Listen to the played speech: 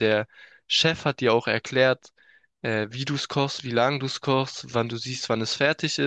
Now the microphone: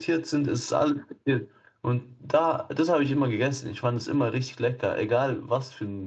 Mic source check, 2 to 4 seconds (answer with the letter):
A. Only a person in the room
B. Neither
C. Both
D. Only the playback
A